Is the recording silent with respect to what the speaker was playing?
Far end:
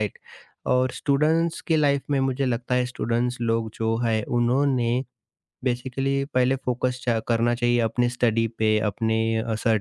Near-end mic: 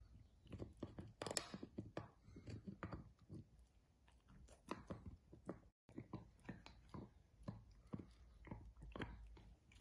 Yes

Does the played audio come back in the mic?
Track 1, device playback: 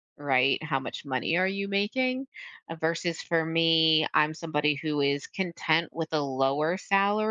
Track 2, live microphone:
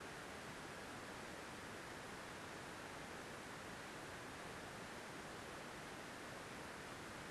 No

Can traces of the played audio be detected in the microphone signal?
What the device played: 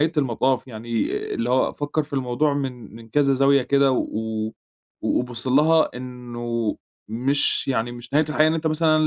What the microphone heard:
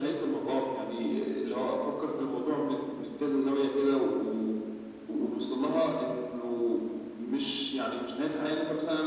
Yes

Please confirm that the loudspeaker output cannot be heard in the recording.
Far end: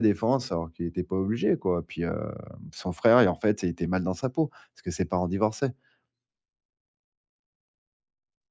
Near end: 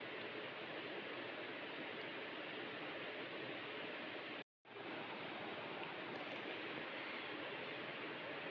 Yes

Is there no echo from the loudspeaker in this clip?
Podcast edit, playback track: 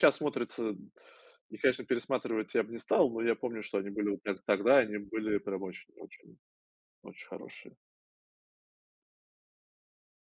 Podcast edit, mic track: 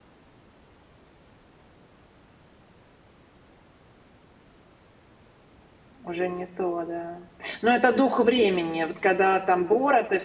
Yes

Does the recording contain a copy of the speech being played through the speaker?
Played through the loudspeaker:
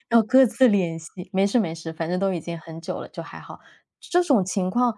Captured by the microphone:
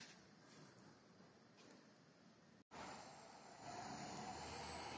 No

